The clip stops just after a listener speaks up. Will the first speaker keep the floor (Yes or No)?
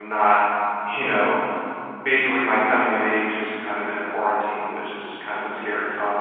No